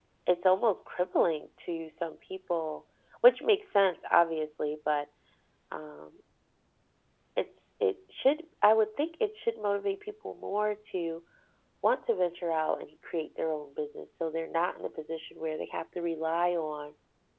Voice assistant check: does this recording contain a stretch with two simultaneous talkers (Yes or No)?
No